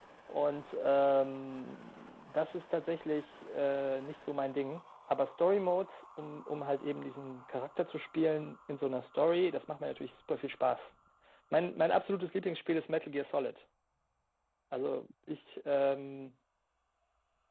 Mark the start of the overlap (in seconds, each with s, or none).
none